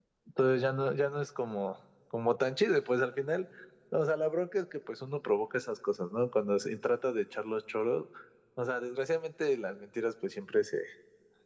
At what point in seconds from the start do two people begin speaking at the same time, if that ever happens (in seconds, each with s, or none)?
none